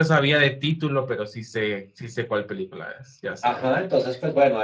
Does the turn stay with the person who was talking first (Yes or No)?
No